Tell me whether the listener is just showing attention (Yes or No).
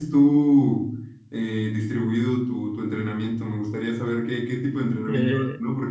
Yes